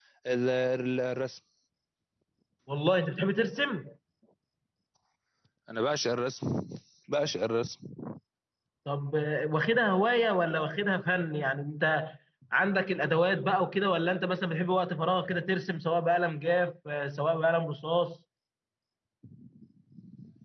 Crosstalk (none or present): none